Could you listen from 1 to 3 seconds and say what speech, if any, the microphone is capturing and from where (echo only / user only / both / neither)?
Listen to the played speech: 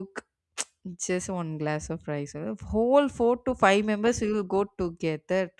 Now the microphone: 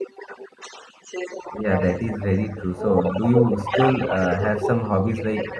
both